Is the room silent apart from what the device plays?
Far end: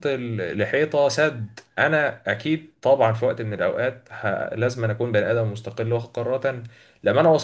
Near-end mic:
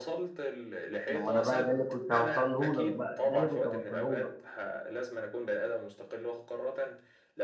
No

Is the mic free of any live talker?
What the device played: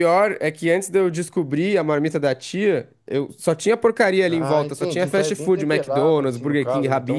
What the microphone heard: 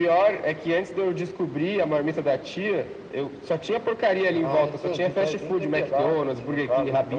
Yes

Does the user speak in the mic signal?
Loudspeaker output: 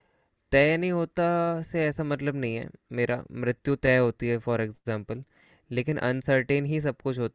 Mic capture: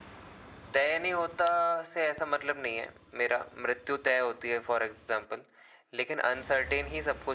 No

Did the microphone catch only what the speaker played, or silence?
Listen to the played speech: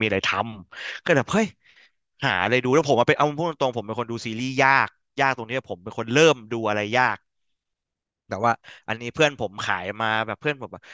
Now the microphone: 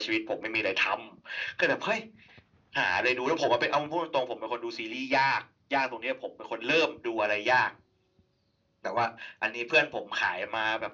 Yes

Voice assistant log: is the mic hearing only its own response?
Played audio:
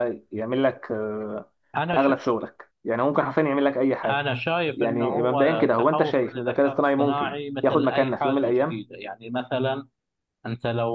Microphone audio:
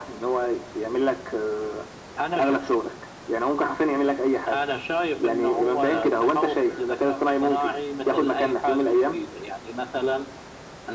Yes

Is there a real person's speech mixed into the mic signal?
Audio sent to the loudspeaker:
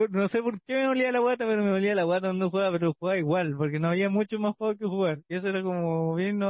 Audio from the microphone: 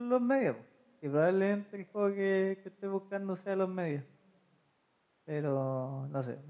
Yes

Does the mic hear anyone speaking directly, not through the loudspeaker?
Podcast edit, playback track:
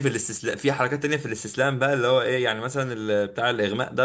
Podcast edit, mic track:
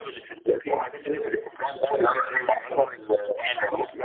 No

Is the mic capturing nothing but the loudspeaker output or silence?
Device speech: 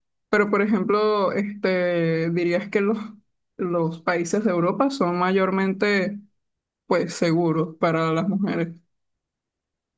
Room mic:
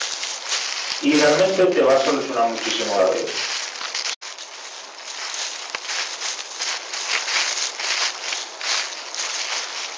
No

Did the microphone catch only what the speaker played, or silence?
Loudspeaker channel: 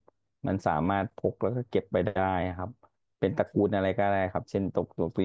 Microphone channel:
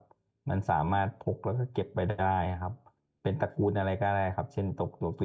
Yes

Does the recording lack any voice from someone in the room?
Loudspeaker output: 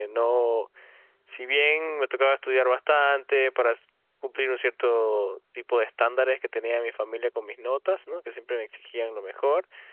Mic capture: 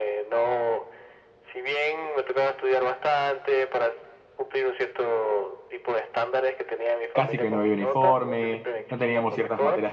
No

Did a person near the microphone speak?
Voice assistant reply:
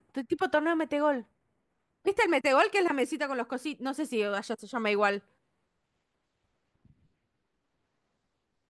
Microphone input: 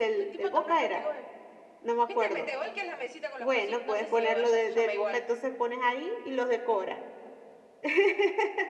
Yes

